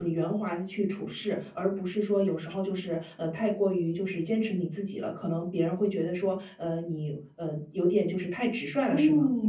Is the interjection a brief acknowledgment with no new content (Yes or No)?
No